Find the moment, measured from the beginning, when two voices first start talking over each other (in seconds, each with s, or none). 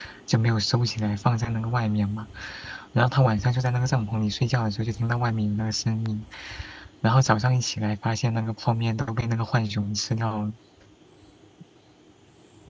none